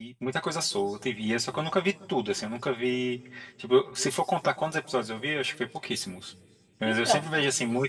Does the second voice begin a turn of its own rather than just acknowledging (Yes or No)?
No